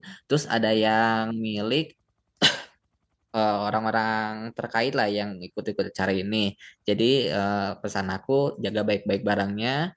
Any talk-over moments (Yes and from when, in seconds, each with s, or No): No